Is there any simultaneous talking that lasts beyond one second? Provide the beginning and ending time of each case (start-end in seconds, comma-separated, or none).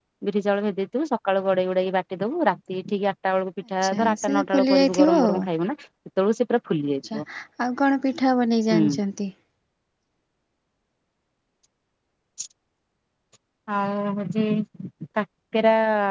3.8-5.4